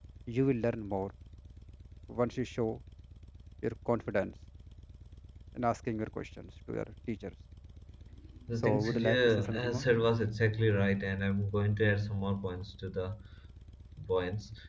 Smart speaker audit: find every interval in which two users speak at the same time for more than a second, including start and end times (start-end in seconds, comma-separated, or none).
8.6-9.9